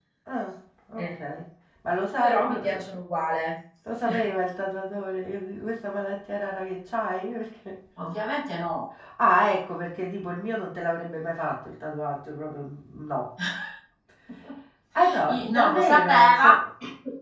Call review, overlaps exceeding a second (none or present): present